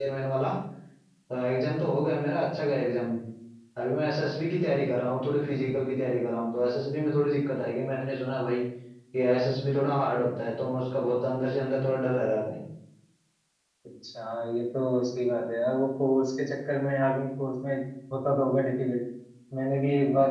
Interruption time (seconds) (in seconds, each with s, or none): none